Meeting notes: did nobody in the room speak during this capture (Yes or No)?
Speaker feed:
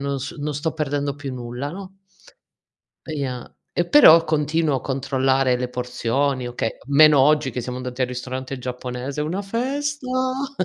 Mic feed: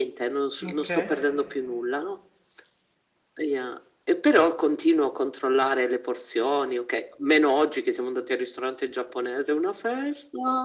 No